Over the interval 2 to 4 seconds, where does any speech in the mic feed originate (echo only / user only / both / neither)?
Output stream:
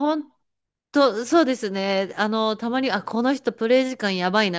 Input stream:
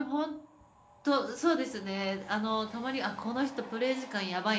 echo only